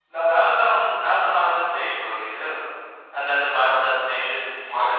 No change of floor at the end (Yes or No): No